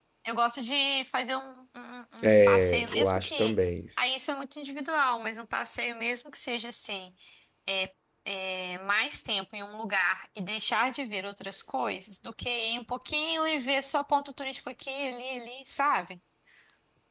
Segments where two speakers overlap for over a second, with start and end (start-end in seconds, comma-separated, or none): 2.2-3.5